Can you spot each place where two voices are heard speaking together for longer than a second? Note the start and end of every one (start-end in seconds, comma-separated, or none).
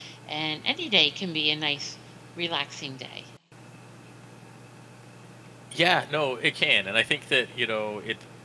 none